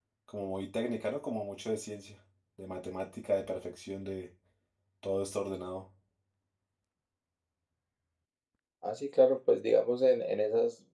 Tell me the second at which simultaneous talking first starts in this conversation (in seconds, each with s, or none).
none